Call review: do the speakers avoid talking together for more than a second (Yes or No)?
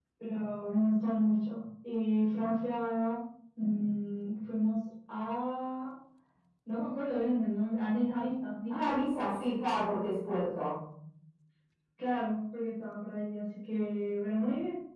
Yes